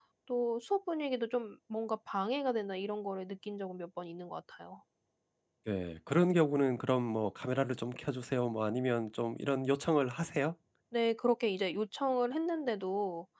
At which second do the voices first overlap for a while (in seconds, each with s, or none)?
none